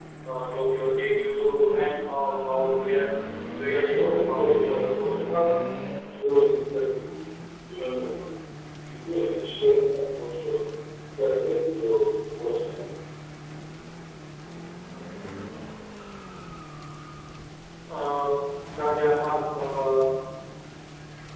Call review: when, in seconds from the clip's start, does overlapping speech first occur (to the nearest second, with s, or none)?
4 s